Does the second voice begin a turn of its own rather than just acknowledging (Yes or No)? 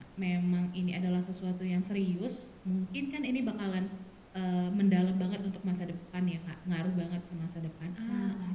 Yes